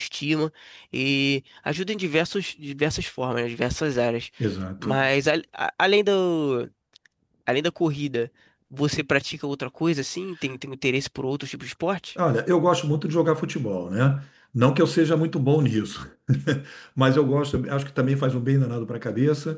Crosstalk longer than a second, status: none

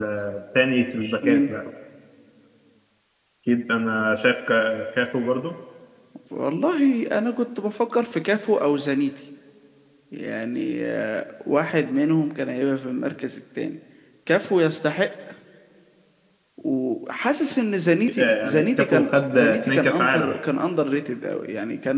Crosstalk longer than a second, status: present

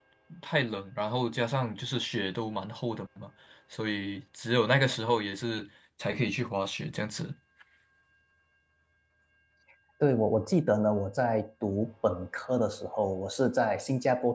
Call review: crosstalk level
none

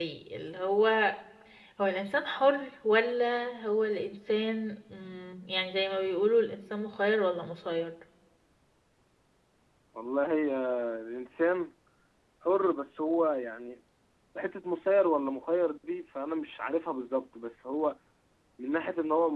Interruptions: none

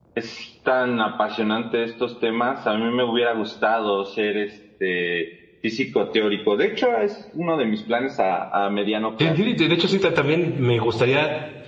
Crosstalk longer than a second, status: none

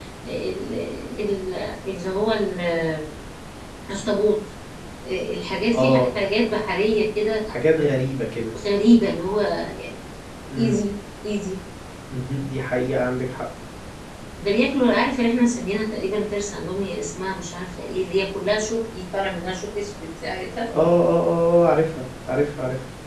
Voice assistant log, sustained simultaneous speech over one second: none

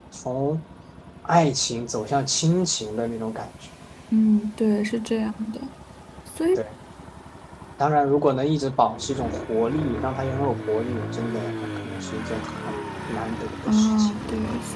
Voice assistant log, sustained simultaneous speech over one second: none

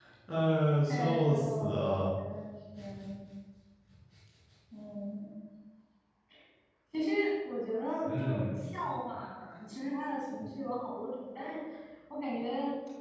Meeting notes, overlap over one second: present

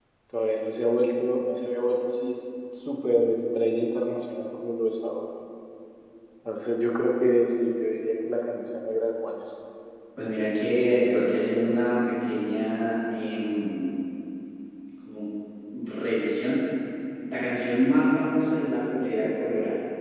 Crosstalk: none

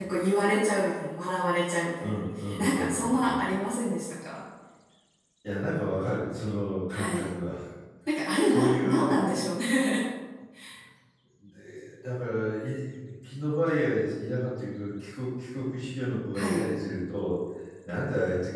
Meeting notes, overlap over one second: present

